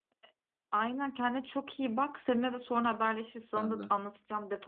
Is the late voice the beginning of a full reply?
No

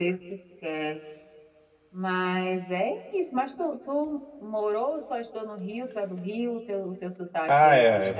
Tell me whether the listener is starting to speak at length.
Yes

